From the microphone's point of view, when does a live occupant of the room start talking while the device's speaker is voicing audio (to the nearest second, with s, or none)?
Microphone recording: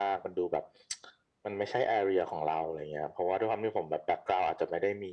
none